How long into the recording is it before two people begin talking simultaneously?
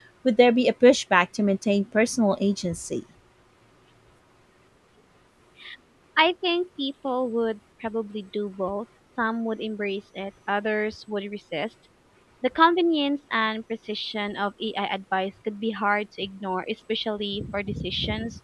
none

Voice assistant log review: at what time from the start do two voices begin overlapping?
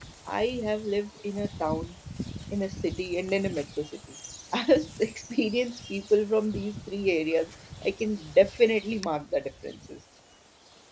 none

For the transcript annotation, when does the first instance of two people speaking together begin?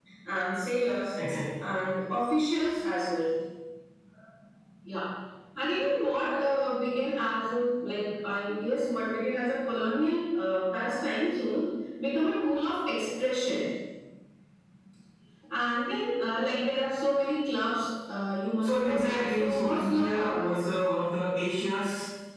19 s

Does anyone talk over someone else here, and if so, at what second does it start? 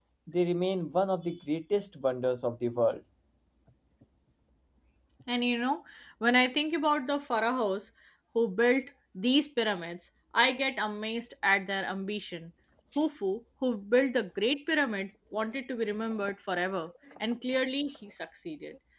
none

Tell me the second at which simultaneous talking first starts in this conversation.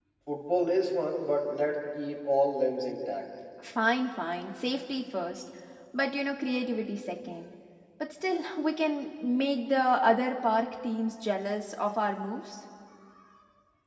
none

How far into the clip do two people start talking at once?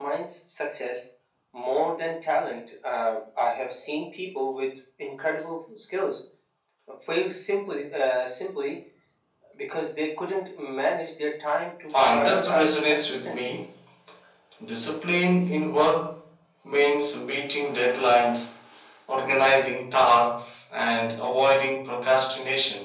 12 s

